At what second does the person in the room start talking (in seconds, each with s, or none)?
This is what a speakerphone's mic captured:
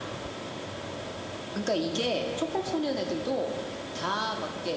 none